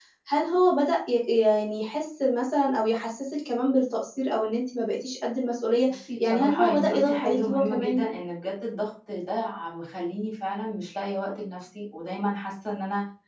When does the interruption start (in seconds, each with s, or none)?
5.9 s